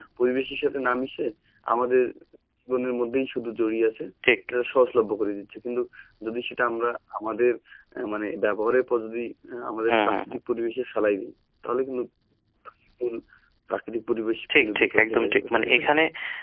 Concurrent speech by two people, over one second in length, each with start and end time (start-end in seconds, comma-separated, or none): 14.5-15.9